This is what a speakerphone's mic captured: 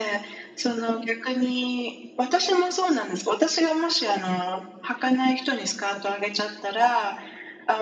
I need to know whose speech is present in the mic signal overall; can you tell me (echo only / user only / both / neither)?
echo only